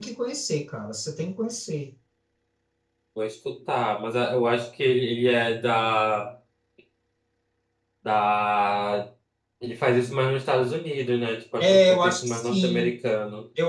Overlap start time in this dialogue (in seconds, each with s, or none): 11.6 s